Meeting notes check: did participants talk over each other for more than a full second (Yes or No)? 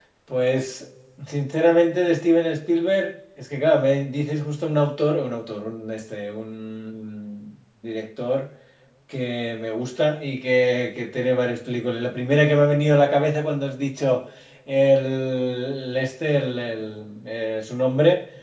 No